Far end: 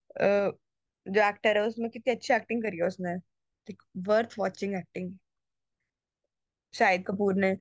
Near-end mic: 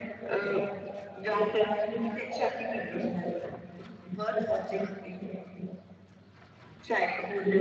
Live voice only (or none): none